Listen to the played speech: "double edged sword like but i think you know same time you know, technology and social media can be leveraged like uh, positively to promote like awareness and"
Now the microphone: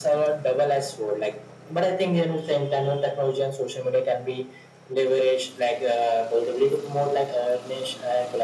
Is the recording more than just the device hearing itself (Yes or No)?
No